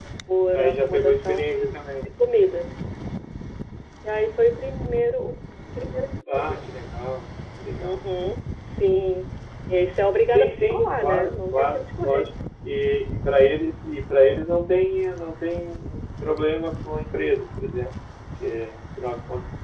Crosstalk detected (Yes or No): Yes